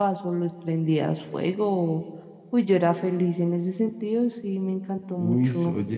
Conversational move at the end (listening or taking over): taking over